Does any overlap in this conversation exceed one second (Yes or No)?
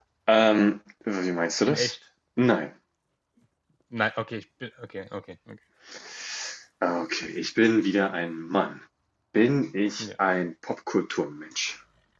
No